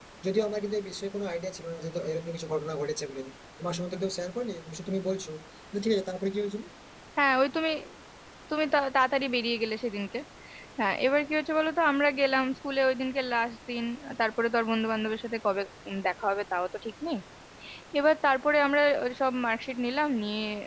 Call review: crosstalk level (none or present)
none